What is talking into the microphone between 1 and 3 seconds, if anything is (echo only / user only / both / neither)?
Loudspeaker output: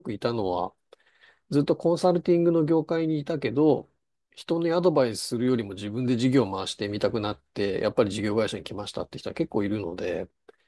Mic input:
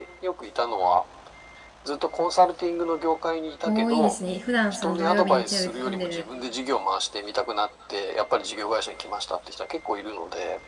echo only